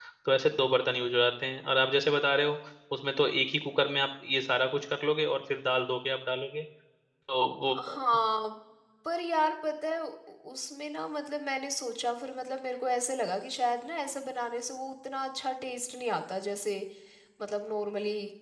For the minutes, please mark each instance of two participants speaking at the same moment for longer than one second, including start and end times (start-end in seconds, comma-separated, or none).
none